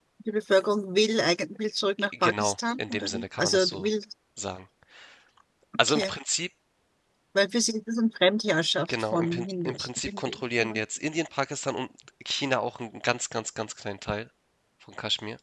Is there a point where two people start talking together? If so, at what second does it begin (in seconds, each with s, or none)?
2.0 s